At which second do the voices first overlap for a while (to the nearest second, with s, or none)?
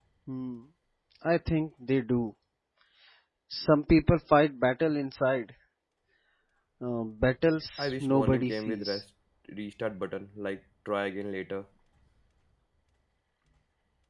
8 s